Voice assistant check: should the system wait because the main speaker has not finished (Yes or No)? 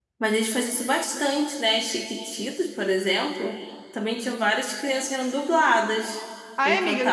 No